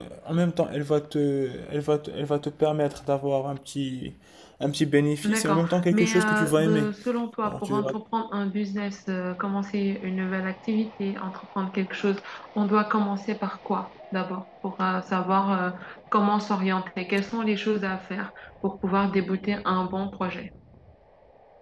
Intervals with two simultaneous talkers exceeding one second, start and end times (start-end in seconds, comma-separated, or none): 5.2-6.9